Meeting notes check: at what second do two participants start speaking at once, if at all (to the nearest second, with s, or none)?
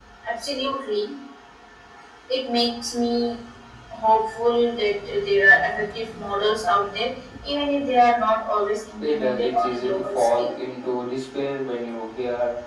9 s